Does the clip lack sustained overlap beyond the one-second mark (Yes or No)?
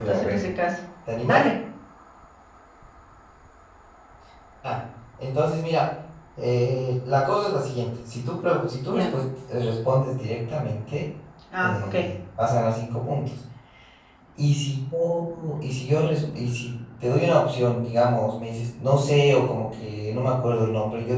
Yes